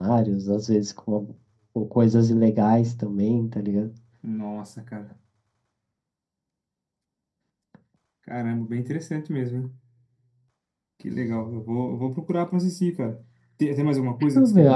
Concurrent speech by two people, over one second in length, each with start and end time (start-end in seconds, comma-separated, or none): none